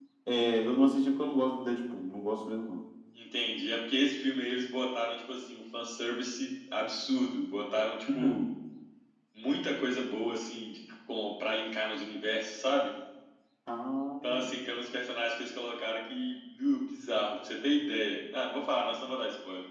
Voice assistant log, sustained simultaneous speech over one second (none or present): none